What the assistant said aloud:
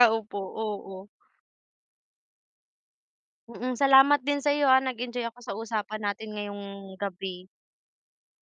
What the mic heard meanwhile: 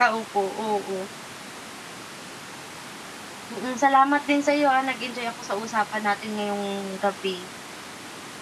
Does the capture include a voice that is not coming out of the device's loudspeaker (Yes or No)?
No